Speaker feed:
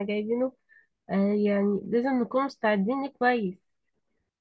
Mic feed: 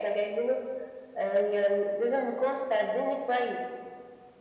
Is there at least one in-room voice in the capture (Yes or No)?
No